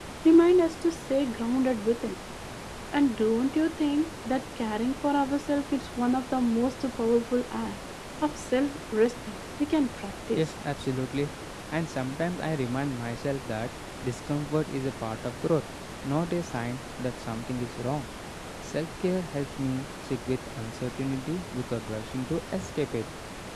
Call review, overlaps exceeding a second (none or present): none